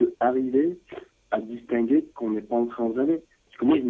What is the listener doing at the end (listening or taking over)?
listening